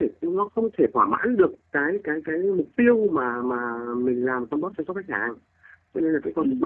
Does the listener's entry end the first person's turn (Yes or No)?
No